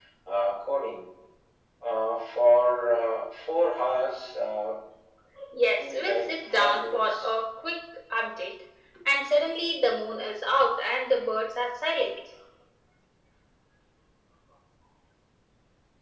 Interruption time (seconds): 6 s

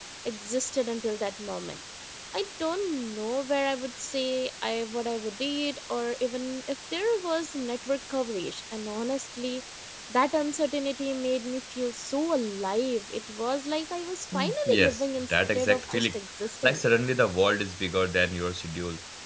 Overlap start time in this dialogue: 14 s

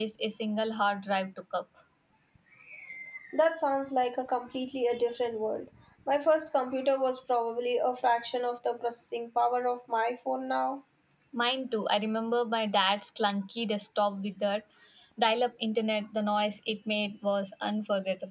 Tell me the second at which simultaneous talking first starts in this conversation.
none

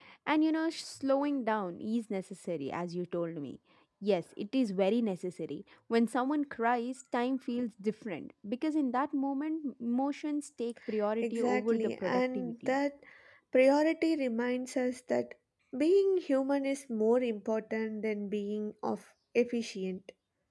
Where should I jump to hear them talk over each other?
11 s

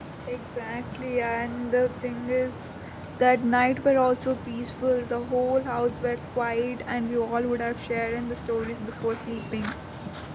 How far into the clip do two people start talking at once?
none

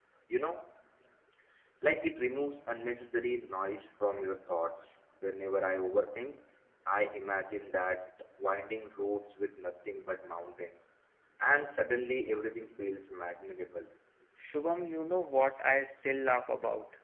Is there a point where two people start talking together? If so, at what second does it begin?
none

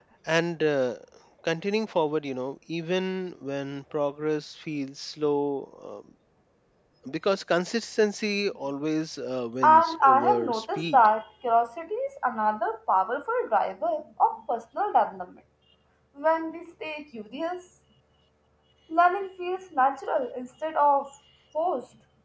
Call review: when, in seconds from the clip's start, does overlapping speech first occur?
10 s

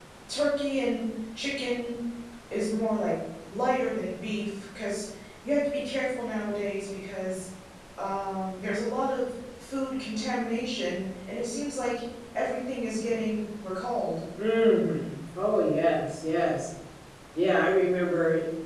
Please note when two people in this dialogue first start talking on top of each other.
none

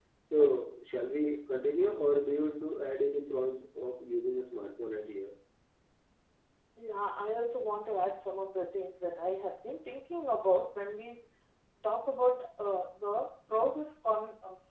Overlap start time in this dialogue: none

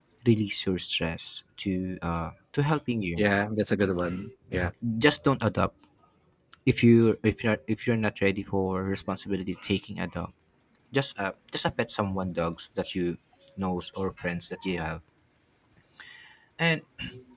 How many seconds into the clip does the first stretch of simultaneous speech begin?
none

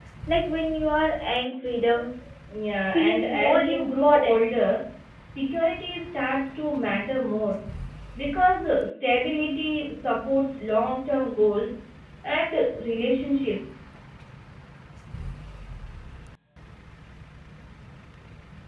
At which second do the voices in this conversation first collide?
3 s

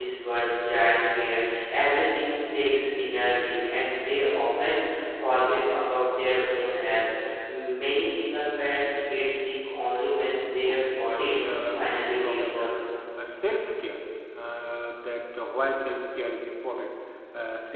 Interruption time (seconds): 11 s

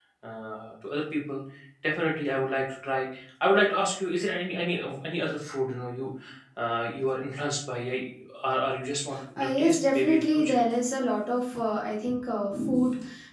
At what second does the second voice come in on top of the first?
9 s

